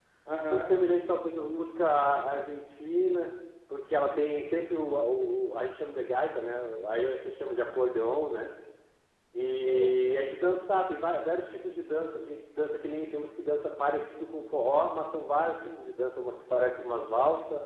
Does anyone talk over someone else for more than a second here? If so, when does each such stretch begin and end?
9.4-10.7

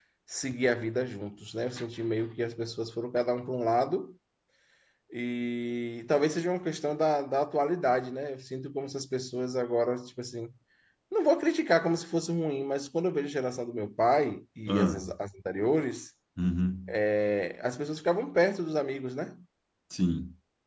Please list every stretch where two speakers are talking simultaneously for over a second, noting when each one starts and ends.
none

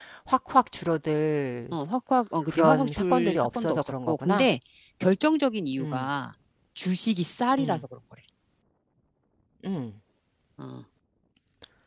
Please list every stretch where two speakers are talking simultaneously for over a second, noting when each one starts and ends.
2.5-4.5

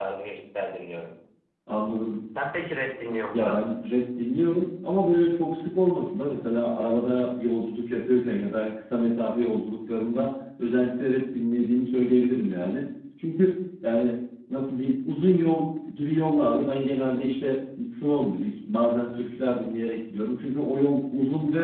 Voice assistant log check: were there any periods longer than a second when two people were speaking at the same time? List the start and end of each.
none

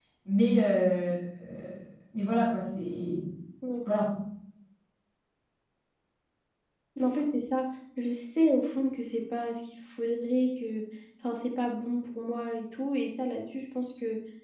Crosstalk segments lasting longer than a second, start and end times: none

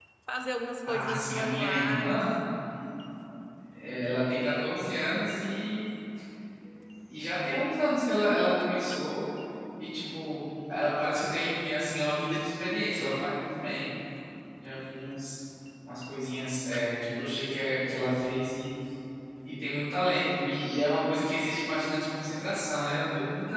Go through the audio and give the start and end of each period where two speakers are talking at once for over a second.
0.8-2.2

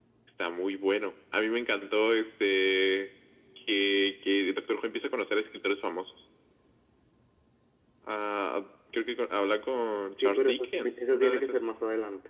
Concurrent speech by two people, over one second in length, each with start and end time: 10.2-11.6

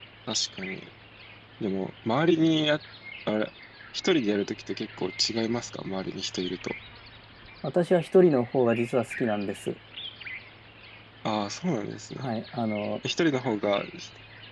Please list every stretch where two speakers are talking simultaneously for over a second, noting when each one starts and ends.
none

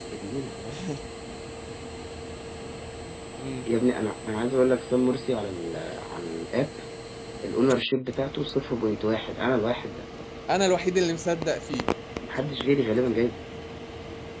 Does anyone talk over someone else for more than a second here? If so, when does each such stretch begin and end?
none

